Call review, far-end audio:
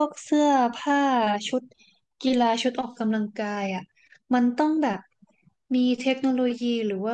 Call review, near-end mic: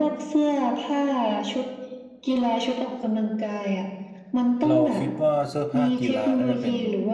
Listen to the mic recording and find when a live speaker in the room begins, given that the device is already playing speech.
4.7 s

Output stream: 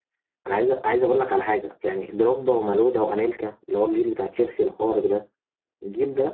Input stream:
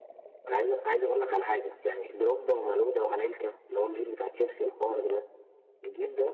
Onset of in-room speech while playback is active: none

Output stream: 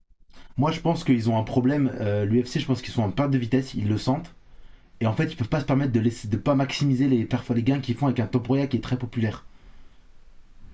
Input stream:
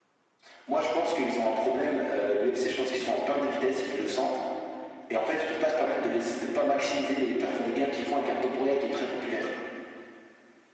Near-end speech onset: none

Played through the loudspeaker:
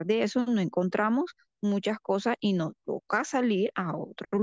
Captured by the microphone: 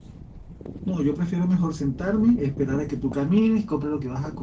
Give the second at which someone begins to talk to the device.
0.8 s

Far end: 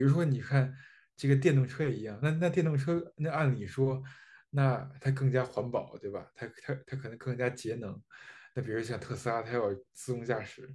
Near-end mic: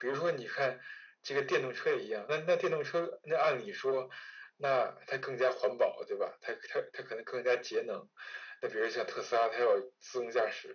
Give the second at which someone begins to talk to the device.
none

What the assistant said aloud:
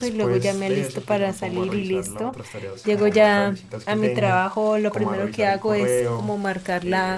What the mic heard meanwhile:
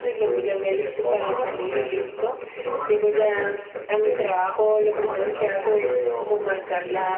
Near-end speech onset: 1.0 s

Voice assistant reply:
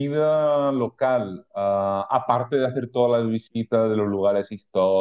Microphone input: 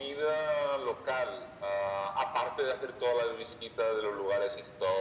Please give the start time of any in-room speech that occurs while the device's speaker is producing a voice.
none

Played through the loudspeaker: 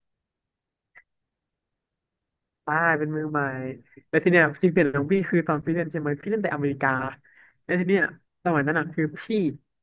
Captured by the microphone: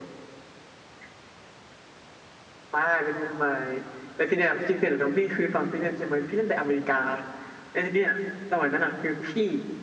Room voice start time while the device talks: none

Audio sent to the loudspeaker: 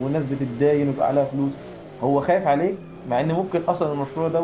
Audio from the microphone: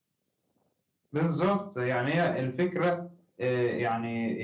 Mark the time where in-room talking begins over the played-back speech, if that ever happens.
1.1 s

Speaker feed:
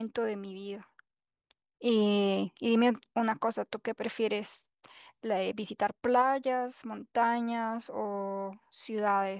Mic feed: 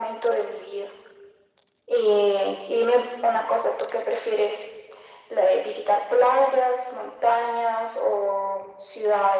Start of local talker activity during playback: none

